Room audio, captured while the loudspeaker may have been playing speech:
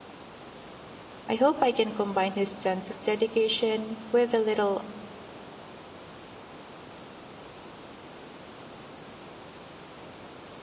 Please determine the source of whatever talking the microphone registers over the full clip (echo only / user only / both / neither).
user only